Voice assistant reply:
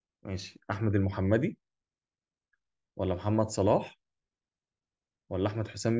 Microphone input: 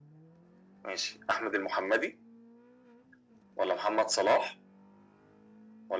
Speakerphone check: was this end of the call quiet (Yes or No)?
Yes